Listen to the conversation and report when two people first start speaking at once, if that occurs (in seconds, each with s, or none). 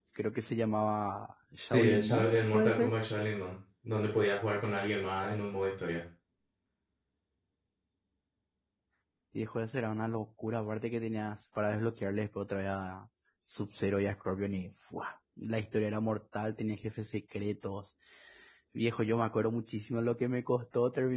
1.6 s